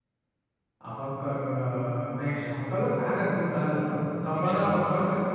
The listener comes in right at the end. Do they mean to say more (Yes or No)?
No